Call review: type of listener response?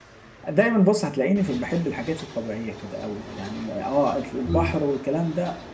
listening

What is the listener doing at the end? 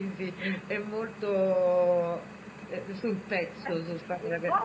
taking over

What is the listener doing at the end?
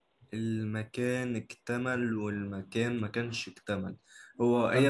listening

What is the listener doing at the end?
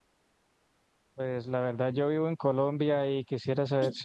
listening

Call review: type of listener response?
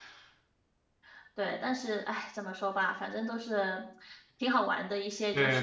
taking over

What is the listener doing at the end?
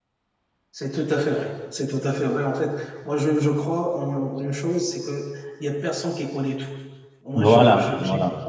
listening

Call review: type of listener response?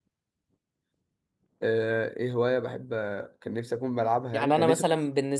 taking over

